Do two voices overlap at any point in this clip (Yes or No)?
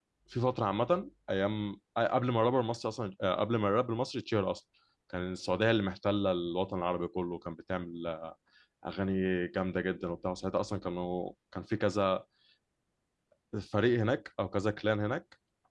No